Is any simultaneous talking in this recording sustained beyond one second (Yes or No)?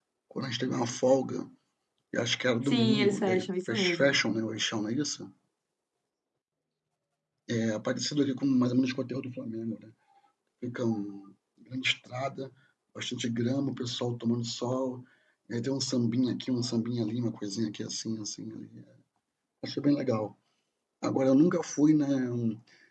Yes